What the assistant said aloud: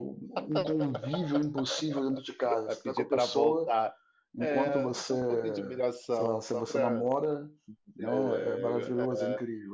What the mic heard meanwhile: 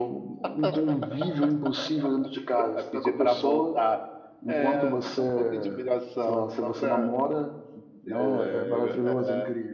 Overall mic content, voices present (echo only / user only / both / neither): echo only